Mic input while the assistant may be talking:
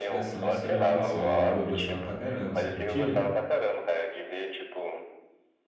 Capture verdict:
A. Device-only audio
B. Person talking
B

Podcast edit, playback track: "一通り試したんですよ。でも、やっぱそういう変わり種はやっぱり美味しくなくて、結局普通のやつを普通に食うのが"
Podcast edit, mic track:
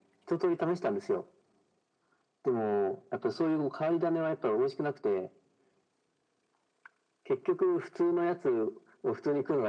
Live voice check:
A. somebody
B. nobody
B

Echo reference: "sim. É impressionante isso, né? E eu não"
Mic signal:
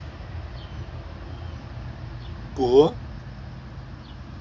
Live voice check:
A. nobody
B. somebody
B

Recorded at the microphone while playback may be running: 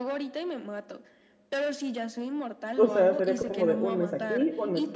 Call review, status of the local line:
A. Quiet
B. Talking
B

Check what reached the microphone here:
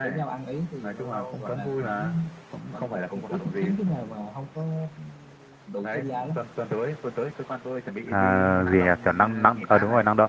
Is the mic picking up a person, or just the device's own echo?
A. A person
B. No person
A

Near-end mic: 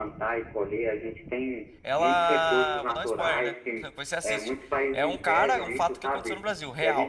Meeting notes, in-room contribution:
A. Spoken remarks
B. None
A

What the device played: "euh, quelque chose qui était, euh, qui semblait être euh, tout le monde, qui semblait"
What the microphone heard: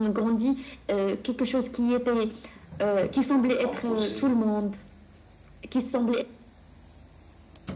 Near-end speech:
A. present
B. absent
A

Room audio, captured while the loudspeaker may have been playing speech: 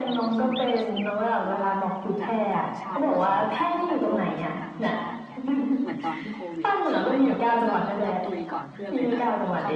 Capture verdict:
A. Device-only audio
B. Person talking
B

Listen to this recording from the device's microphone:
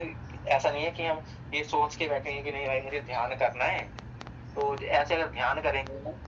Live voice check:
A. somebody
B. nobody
B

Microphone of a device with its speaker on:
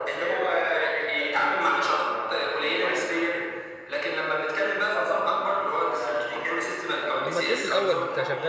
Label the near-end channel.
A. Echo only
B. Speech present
B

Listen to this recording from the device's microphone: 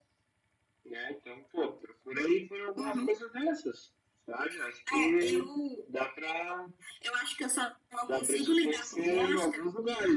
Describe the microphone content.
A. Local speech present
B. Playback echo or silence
B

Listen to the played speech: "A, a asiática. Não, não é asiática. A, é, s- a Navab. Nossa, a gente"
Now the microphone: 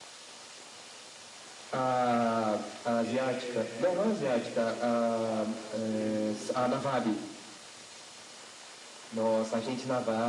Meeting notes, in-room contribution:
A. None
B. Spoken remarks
B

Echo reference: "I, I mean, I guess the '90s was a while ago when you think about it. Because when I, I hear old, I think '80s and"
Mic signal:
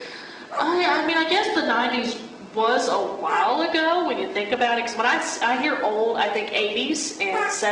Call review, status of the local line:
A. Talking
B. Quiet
B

